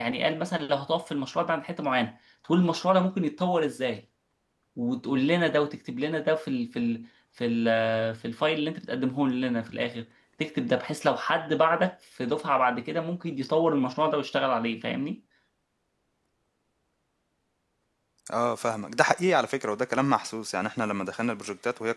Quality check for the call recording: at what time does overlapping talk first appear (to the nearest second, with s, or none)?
none